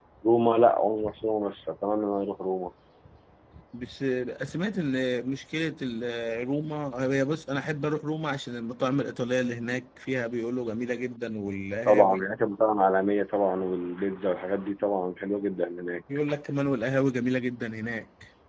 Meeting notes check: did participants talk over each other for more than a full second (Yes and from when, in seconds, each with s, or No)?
No